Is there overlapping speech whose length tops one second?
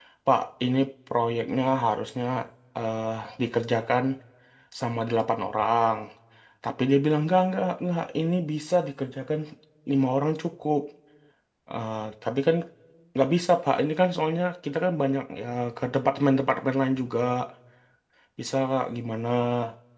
No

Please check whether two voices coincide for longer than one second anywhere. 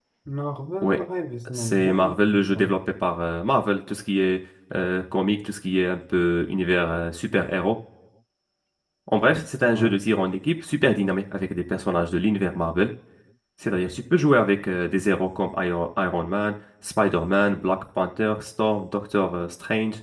Yes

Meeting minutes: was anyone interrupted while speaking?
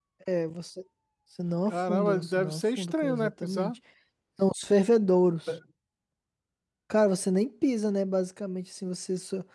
Yes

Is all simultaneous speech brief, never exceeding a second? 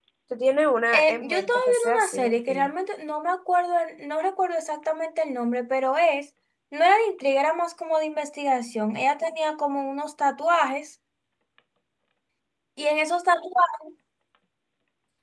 No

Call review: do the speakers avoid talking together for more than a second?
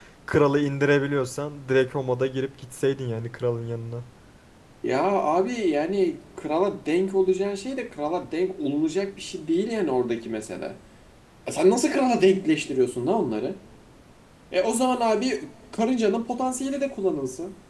Yes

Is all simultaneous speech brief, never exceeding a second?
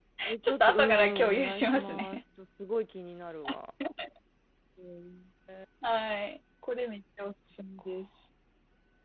No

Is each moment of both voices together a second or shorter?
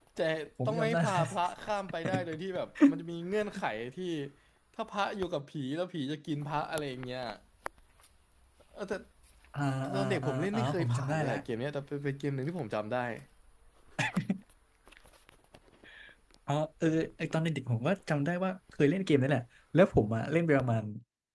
No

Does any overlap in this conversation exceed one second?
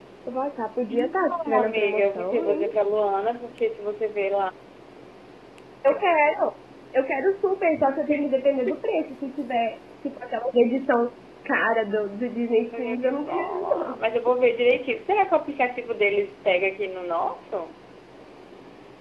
Yes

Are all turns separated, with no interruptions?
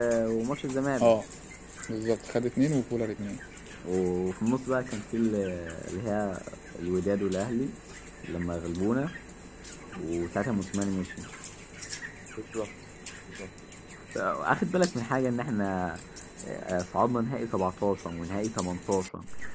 Yes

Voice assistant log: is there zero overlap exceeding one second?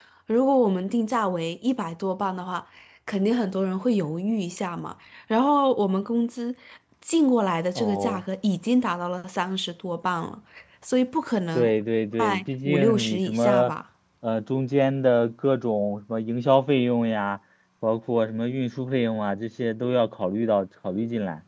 No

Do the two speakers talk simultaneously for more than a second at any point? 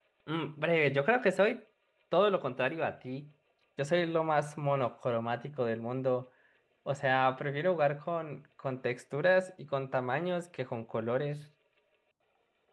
No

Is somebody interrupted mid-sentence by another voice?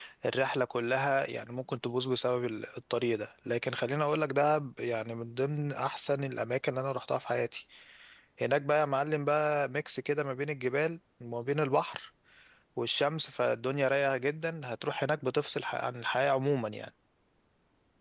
No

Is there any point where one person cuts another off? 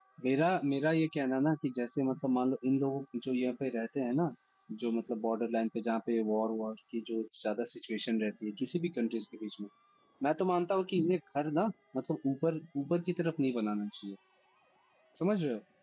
No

